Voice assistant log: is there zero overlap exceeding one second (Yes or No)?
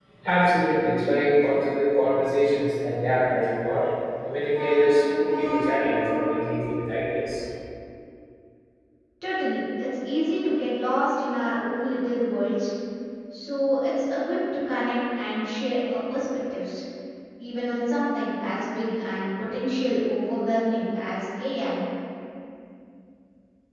Yes